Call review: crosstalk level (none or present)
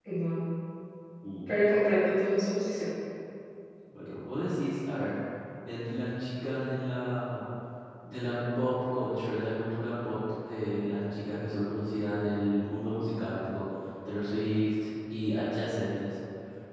none